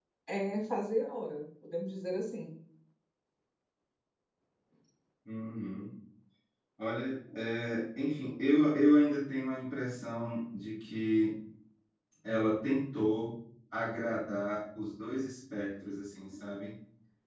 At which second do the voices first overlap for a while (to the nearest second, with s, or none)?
none